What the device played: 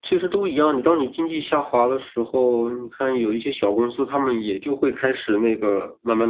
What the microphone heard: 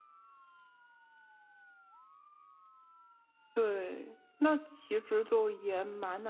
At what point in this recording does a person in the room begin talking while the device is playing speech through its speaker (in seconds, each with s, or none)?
3.5 s